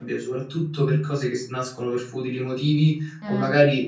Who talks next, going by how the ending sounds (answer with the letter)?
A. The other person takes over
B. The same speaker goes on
B